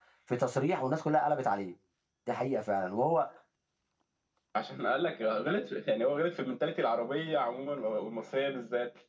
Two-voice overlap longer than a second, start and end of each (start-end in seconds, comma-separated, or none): none